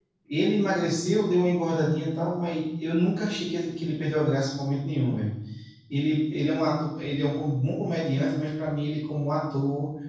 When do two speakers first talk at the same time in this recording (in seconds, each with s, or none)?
none